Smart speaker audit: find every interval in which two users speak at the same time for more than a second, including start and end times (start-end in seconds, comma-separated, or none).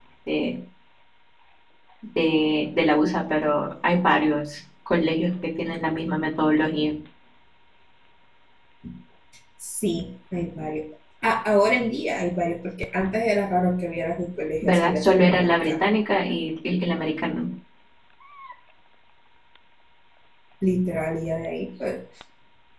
14.6-15.9